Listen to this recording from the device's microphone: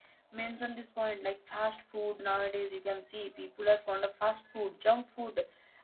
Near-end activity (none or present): present